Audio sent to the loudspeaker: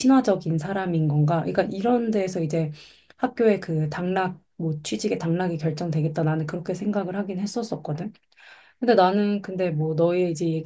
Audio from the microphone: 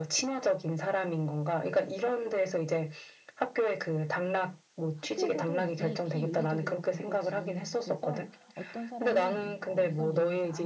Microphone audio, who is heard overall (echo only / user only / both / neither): both